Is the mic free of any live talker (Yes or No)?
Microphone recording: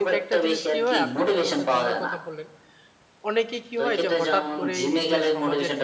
No